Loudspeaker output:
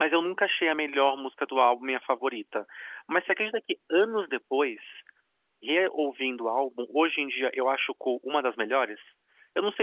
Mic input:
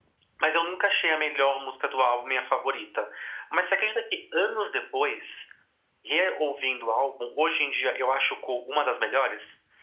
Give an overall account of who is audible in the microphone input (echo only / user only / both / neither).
echo only